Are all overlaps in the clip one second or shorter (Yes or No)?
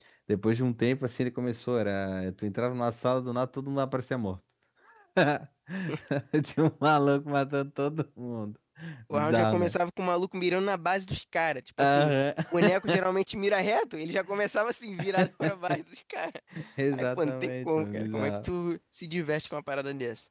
No